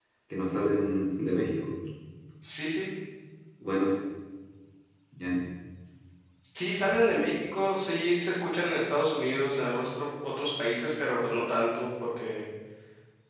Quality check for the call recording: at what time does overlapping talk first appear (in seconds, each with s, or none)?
none